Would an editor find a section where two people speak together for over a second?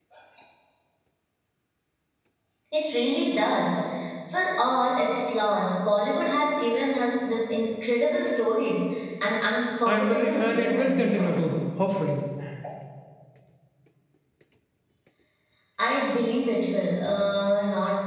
Yes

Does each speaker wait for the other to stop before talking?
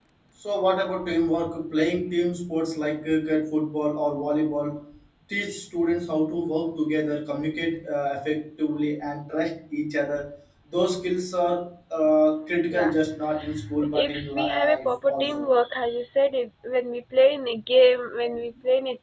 No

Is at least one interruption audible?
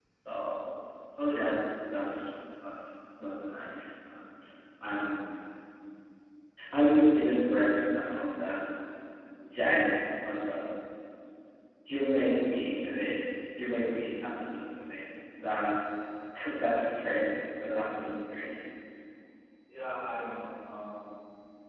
No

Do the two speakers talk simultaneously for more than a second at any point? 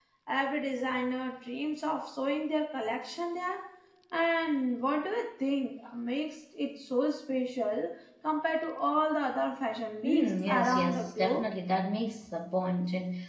Yes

